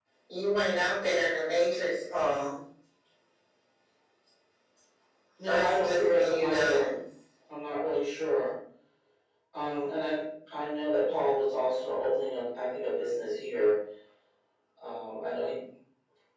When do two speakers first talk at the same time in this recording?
5.5 s

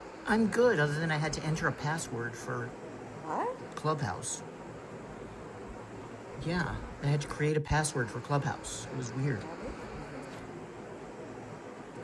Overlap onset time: none

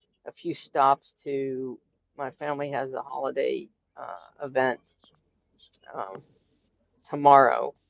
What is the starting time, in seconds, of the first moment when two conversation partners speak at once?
none

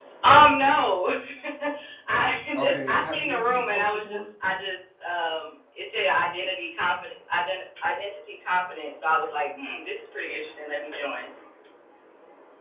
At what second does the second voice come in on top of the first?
2.5 s

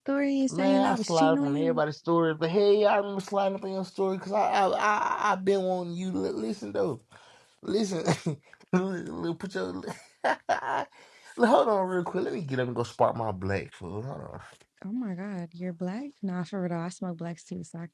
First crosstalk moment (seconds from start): 0.5 s

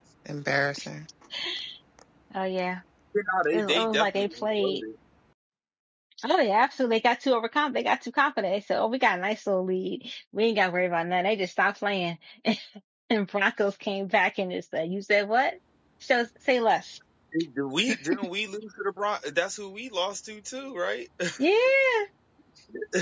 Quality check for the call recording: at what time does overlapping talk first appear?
3.5 s

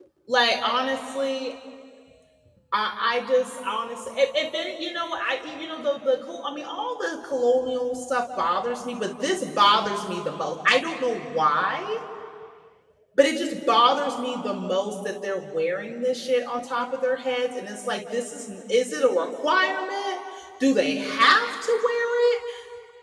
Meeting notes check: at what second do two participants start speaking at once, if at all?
none

